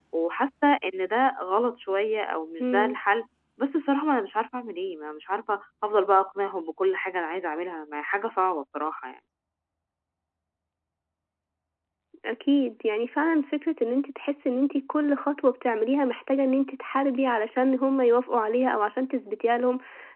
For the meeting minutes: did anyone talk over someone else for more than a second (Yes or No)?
No